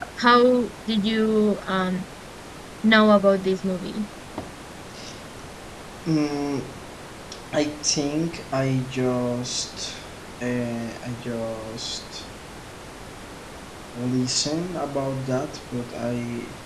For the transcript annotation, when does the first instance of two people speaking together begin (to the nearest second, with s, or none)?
none